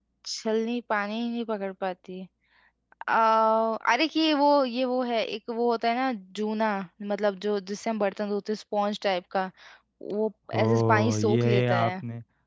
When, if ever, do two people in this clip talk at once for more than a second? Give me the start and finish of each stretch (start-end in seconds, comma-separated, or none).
10.6-11.9